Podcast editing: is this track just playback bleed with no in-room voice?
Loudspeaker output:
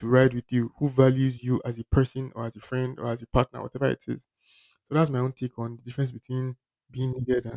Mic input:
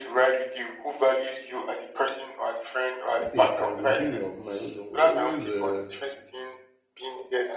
No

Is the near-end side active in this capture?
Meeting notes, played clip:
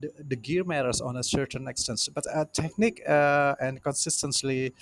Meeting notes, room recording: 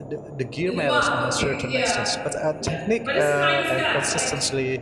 Yes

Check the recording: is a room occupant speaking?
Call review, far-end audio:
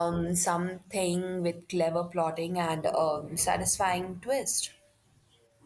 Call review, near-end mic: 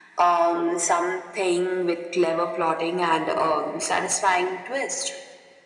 No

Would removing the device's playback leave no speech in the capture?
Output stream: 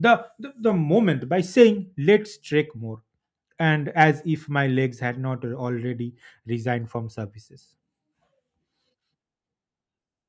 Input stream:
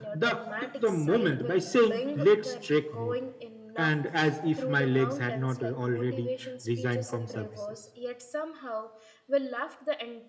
No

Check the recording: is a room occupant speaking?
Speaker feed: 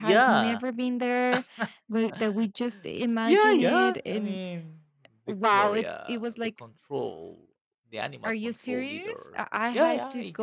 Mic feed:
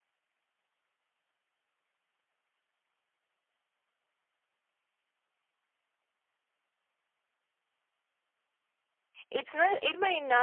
Yes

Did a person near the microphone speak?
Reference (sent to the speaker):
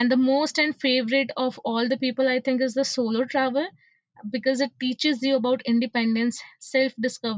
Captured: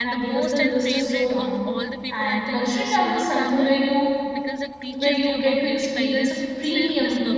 Yes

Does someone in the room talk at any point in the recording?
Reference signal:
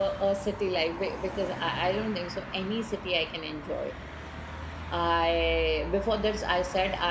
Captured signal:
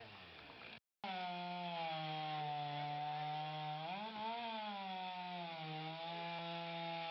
No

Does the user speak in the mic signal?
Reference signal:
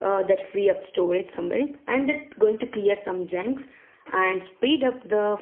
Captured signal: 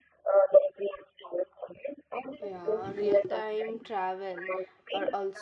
Yes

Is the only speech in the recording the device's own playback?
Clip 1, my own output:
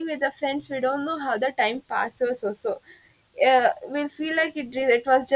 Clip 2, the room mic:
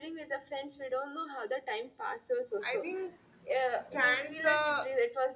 No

